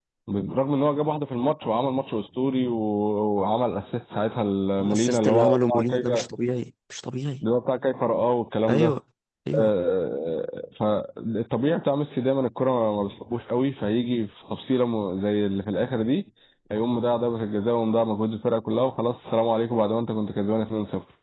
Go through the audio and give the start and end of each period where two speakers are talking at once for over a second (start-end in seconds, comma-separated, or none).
4.8-6.2